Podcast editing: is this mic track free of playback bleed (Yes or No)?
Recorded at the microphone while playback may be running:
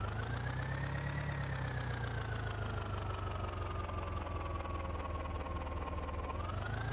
Yes